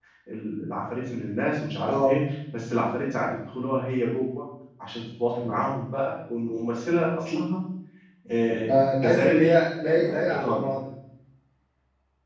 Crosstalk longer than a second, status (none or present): present